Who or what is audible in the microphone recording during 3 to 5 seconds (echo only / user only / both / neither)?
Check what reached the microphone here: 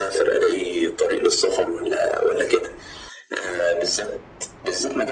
echo only